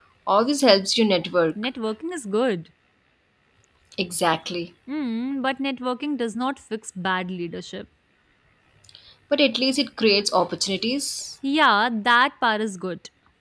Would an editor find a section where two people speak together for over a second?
No

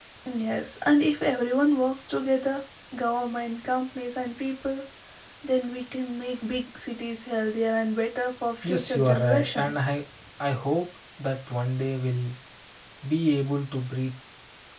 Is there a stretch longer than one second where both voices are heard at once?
Yes, from 8.6 s

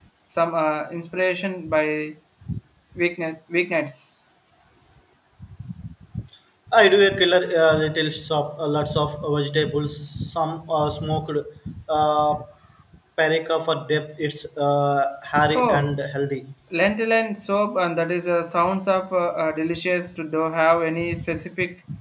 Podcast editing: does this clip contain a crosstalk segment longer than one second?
No

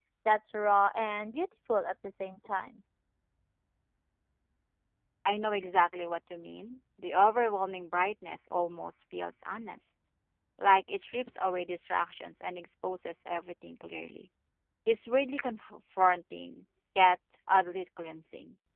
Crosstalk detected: No

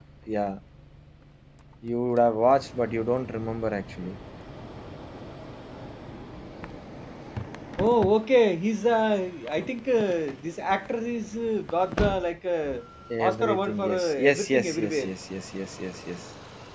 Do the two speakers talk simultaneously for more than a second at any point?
Yes, from 13.2 s

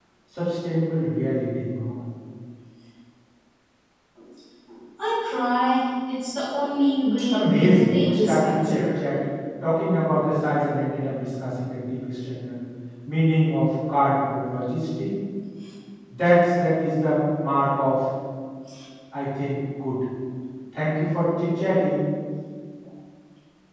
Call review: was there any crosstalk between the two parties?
Yes, from 7.3 s

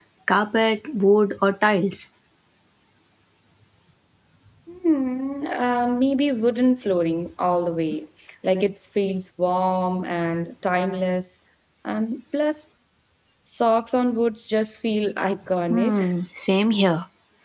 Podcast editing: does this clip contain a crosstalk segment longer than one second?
No

